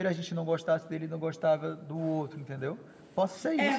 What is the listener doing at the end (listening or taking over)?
taking over